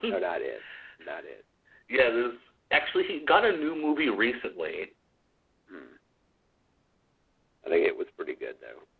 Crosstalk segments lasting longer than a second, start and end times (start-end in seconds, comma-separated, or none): none